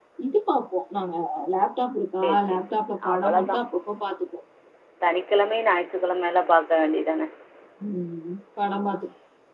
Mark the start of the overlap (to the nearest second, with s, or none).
2 s